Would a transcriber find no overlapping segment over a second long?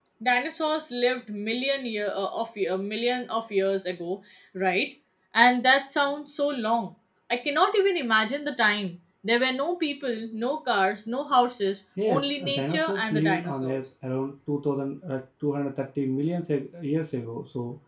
No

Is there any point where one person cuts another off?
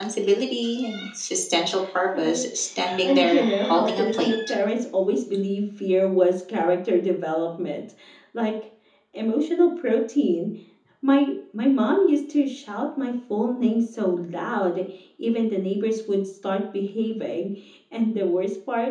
Yes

